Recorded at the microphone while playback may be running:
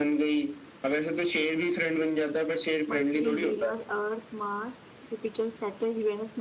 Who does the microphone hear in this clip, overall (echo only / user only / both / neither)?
both